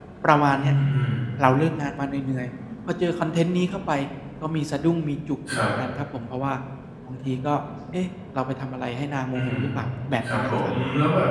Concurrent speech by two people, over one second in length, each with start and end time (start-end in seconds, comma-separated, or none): none